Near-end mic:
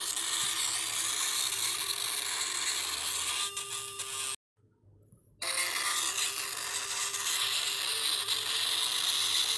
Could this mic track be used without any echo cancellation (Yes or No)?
Yes